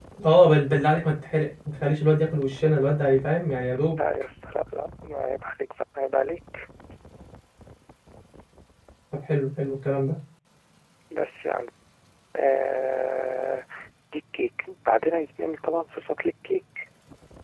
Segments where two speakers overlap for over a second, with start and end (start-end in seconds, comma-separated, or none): none